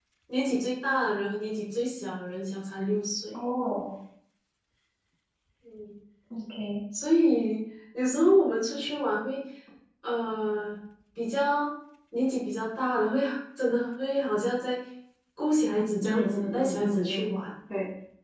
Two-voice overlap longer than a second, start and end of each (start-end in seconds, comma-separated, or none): 16.0-17.4